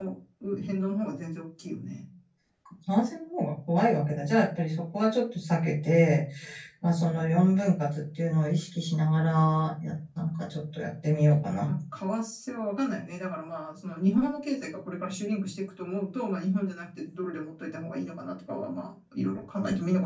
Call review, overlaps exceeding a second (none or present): none